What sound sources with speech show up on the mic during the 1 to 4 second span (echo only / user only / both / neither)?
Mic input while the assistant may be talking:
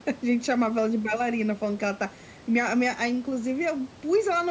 echo only